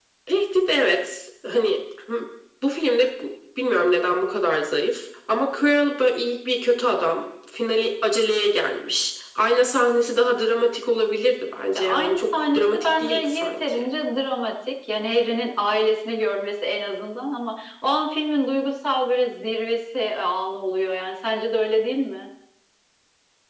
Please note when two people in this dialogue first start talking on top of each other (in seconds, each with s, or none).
11.7 s